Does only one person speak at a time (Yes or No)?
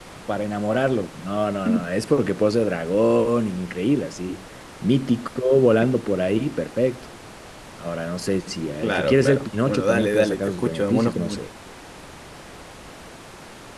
No